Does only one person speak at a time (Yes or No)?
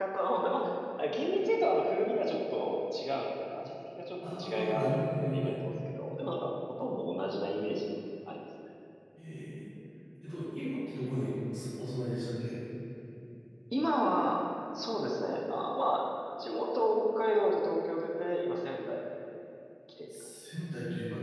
No